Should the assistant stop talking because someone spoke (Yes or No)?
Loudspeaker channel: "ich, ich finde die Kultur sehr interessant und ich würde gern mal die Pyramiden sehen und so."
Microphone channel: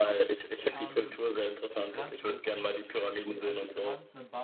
Yes